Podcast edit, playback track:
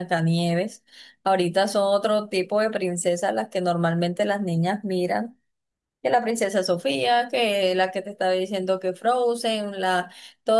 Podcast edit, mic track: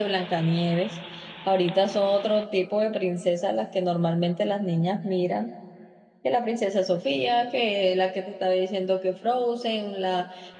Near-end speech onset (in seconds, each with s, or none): none